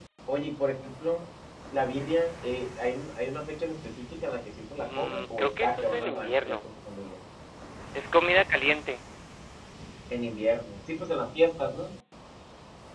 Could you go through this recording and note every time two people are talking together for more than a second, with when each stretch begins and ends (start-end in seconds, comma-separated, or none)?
4.8-6.6